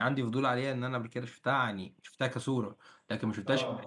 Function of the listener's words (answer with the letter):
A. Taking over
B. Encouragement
B